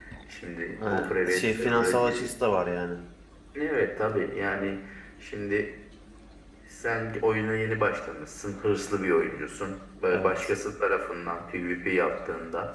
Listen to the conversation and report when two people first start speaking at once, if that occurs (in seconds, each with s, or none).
0.8 s